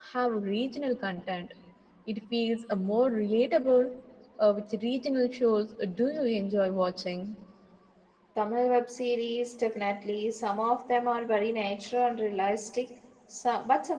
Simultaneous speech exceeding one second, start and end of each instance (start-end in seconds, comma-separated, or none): none